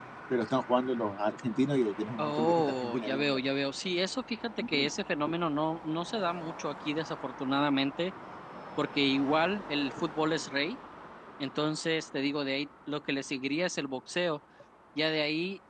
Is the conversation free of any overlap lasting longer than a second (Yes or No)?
No